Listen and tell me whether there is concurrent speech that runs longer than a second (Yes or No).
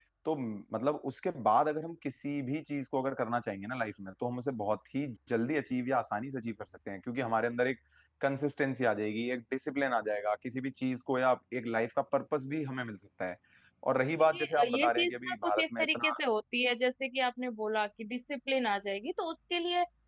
Yes